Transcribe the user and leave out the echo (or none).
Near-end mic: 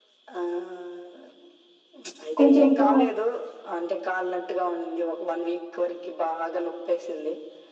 కొంచం పో